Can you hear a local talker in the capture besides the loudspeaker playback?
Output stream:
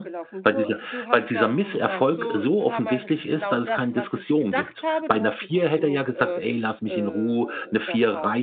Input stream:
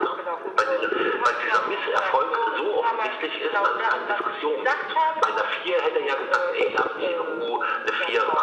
No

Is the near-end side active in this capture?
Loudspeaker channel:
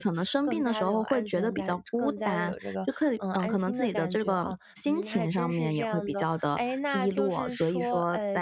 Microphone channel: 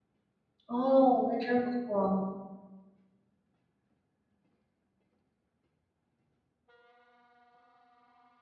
Yes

